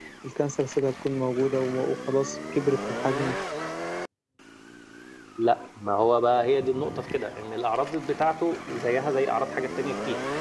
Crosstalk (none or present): none